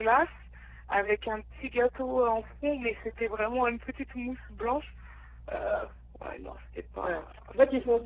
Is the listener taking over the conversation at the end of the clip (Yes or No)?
Yes